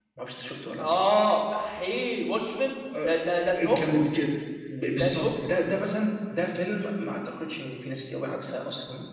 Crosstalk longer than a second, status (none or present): none